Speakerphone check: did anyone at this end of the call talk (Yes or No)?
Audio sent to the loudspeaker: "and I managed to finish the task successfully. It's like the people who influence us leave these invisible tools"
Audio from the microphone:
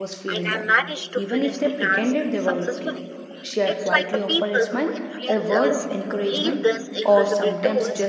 Yes